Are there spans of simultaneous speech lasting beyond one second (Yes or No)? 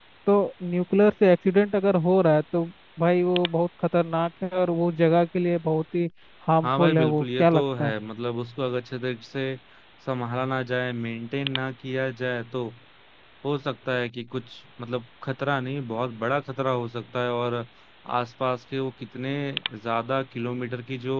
Yes